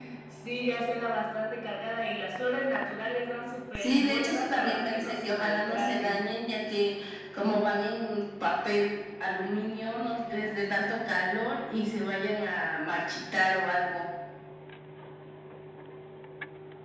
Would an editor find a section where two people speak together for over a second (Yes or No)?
Yes